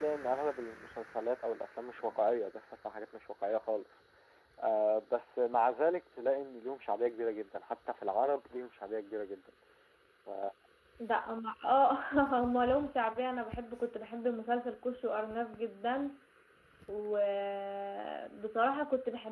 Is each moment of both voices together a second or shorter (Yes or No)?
Yes